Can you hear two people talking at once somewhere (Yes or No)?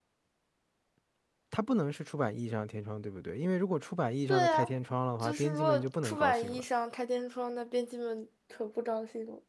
Yes